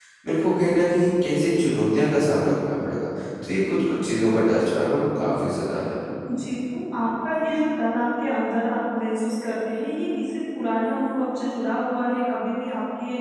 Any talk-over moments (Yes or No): No